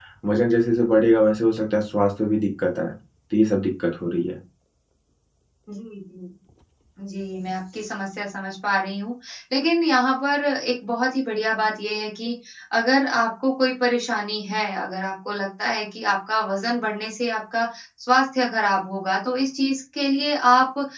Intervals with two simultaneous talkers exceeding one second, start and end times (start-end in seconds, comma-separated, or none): none